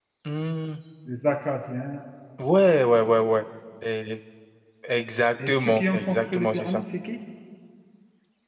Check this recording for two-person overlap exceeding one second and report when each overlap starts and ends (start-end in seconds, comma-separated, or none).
5.5-6.8